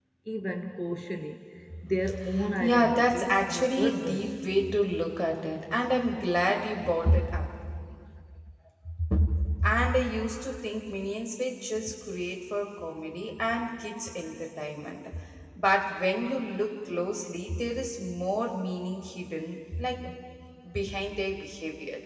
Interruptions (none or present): present